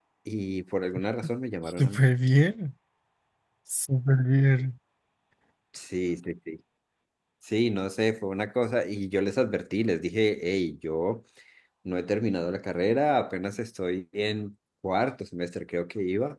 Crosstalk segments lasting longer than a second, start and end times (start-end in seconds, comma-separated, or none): none